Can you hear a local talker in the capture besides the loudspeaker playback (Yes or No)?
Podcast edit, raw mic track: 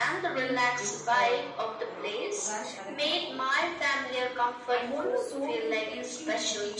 Yes